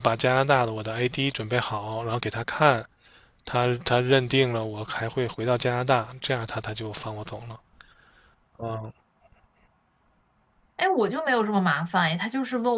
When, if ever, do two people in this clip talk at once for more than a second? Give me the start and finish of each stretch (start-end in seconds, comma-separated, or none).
none